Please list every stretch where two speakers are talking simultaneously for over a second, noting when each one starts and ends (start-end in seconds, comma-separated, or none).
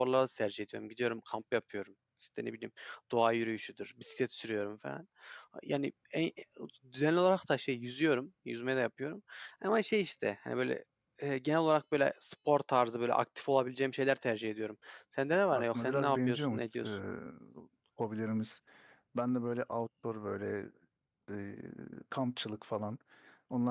15.5-16.9